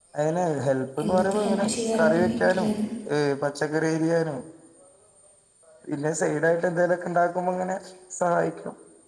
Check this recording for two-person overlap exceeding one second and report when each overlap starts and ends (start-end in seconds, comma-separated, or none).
1.0-2.7